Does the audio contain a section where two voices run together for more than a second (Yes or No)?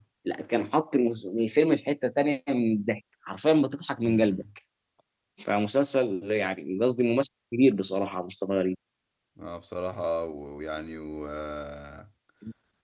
No